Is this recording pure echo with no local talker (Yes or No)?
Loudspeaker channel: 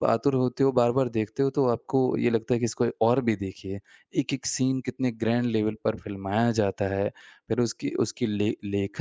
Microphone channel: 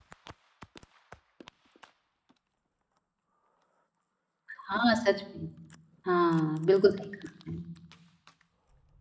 No